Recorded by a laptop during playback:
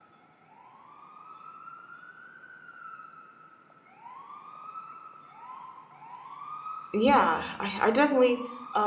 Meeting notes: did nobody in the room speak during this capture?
No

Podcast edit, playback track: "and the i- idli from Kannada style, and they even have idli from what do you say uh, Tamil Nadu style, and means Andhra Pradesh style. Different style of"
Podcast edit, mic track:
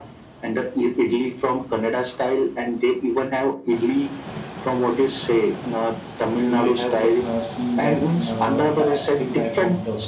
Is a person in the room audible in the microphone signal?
Yes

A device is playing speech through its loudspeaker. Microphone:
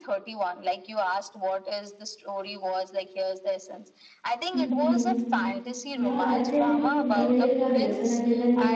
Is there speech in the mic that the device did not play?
Yes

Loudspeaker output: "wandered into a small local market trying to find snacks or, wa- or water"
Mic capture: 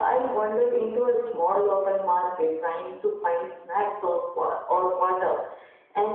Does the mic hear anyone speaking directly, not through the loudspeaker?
No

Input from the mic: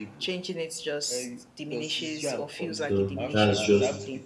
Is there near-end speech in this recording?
Yes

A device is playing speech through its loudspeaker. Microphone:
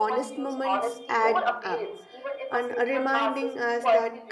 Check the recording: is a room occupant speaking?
Yes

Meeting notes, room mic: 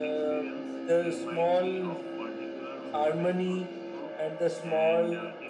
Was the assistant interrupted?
Yes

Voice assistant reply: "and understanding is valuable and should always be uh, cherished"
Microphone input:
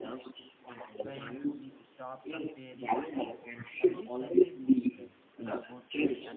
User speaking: Yes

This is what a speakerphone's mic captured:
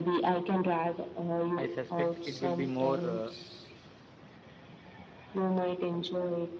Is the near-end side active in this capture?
Yes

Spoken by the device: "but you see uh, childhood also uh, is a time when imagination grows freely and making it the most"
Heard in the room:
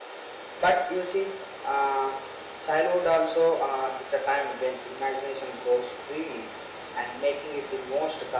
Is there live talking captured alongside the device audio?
No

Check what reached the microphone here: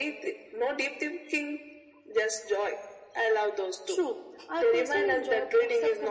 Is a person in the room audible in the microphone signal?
No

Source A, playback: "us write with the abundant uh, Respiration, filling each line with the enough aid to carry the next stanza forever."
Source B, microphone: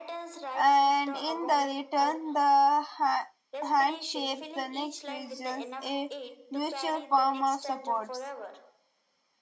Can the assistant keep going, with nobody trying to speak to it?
No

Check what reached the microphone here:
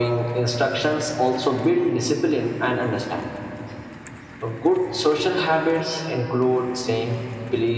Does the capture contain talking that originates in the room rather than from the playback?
No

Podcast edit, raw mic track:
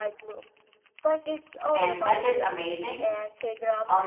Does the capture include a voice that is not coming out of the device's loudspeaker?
Yes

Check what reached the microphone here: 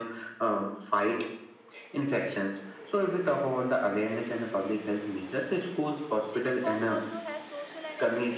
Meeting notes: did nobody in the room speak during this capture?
No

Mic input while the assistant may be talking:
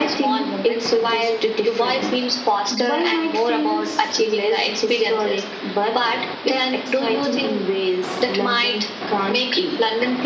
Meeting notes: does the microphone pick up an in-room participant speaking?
No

